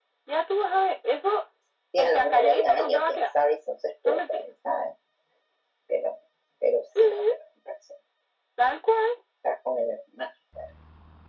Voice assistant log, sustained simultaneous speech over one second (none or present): present